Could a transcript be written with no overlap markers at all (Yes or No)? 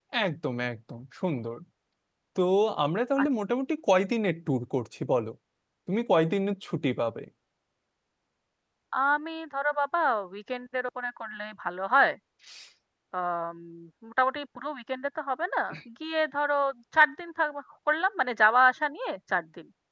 Yes